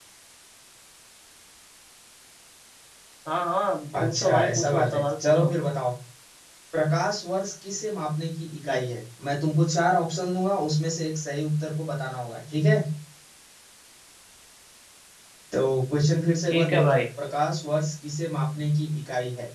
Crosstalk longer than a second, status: present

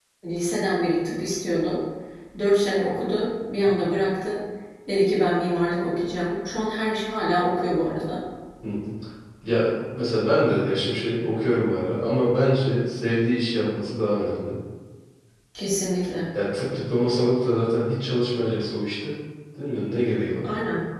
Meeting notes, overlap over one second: none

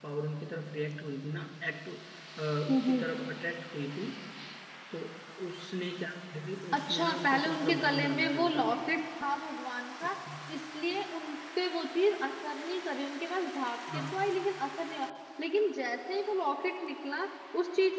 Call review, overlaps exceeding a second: present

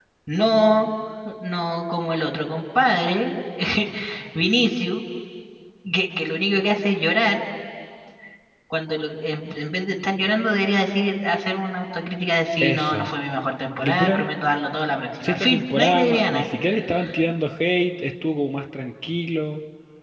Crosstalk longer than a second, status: present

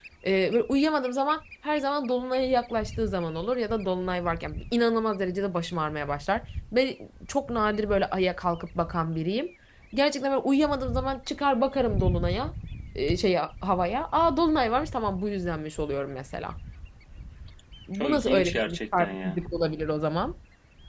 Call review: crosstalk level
present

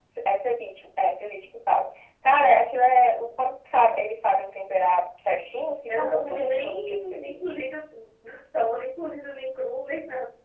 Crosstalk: present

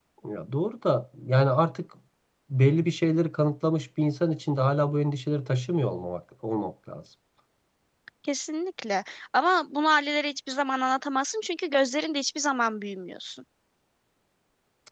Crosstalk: none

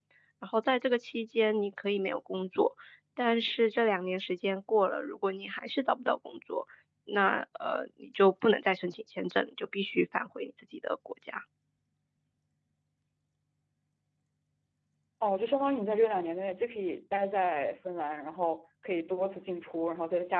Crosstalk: none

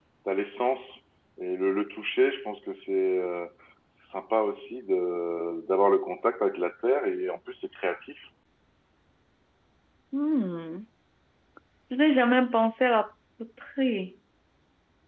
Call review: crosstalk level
none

